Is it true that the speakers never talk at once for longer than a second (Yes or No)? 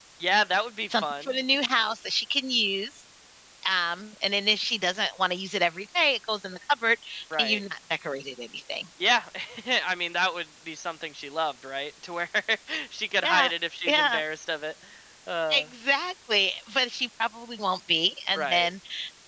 Yes